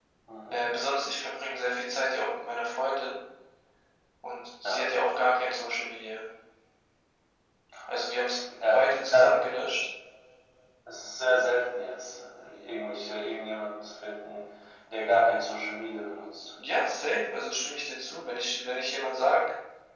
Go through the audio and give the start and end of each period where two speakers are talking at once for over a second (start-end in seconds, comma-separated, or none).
none